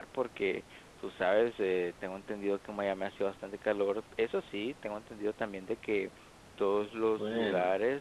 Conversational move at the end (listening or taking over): listening